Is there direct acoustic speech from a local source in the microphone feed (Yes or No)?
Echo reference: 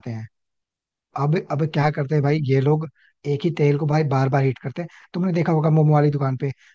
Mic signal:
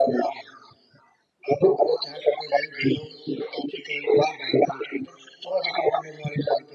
No